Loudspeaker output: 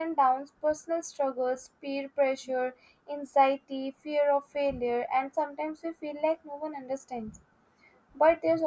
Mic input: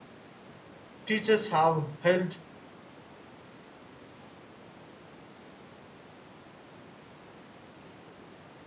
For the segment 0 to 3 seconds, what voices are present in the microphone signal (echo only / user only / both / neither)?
user only